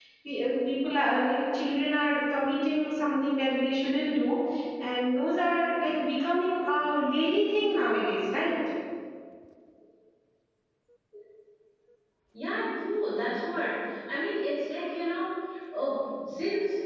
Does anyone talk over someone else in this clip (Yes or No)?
No